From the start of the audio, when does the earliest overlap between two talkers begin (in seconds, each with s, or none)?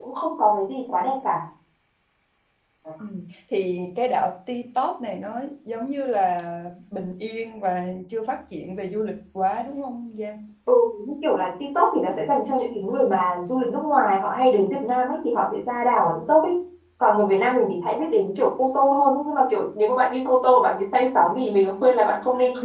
none